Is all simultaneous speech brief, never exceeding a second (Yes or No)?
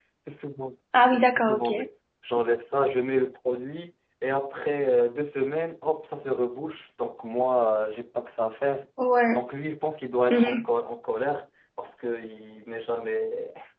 Yes